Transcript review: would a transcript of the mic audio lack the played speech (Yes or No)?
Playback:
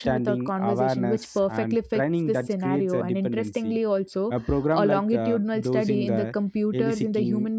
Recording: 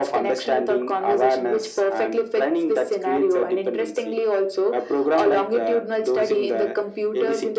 No